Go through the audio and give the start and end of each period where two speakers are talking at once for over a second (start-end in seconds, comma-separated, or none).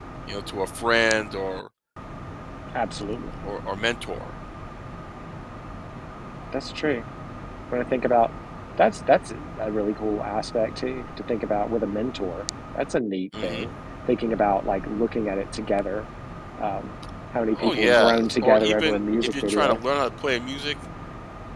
17.5-19.8